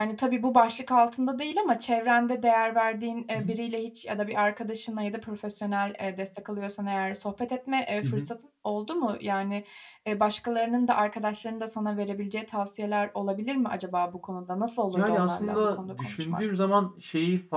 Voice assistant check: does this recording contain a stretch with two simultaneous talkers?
Yes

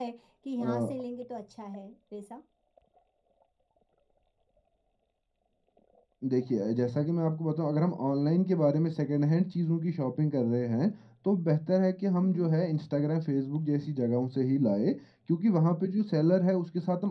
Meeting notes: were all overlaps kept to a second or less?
Yes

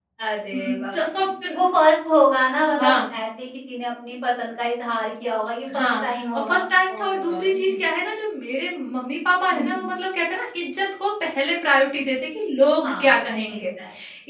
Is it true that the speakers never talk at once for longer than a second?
No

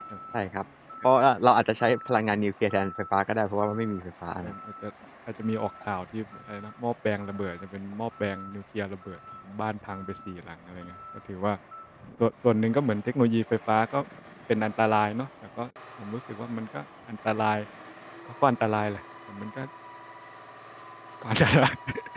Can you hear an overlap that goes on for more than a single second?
No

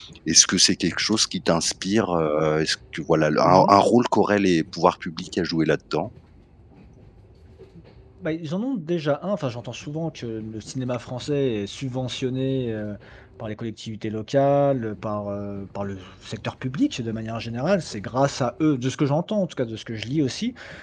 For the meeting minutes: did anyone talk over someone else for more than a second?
No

